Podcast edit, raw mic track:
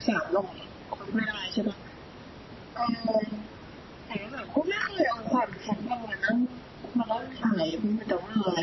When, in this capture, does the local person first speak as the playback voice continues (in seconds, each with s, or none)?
none